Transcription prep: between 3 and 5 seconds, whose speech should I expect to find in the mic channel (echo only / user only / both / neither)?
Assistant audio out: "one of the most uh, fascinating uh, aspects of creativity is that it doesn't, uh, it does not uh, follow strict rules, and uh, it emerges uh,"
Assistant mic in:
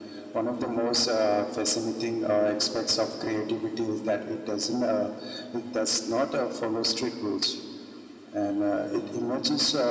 echo only